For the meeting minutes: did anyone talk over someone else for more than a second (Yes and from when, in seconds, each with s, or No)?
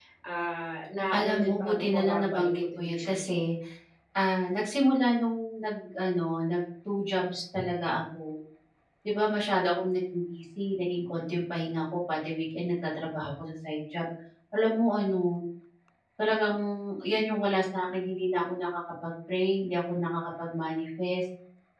Yes, from 1.2 s